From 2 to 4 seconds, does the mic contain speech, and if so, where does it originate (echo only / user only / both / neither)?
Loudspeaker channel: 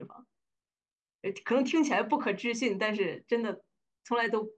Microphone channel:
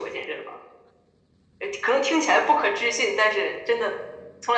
echo only